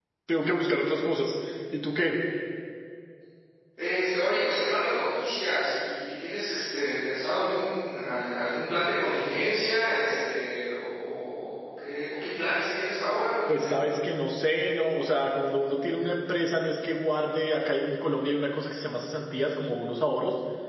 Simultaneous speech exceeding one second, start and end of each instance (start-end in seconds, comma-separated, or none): none